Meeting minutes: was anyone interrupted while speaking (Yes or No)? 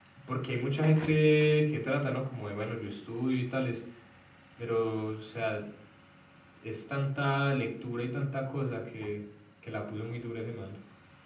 No